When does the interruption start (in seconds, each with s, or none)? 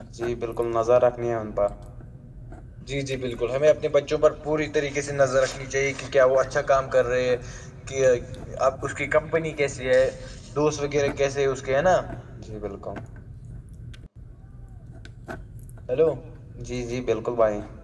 none